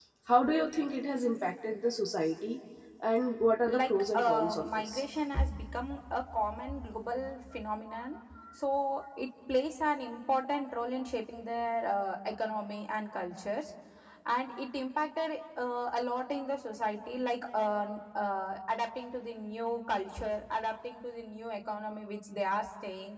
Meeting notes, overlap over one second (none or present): present